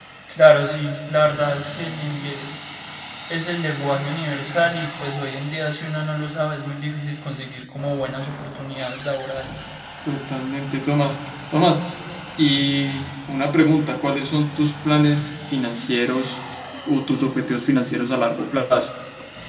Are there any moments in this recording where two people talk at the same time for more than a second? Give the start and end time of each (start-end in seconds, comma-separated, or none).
none